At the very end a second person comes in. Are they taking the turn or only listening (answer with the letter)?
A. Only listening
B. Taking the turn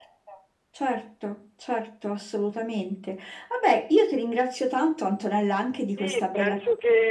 B